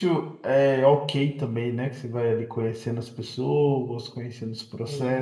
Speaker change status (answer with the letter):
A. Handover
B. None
B